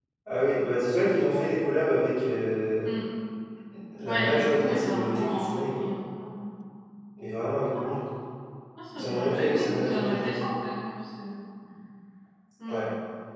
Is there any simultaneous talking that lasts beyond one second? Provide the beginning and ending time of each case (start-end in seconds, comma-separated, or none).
4.1-5.6, 8.9-10.3